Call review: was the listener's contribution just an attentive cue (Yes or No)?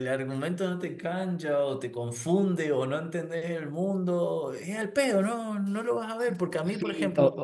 No